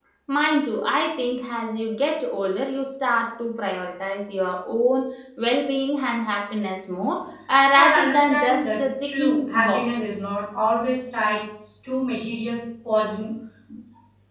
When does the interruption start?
8 s

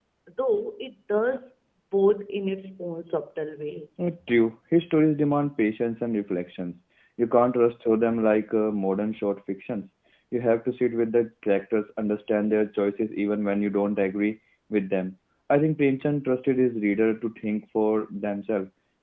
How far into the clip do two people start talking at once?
none

